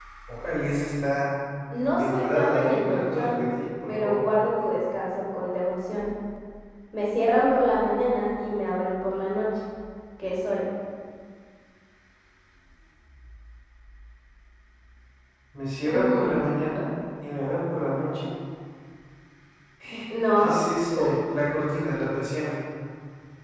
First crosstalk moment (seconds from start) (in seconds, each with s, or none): 2.0 s